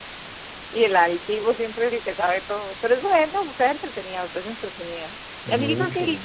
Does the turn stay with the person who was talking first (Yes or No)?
Yes